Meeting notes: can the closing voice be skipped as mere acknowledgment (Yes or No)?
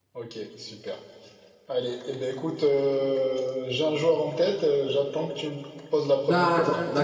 No